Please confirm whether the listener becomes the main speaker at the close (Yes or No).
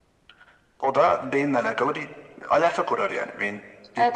Yes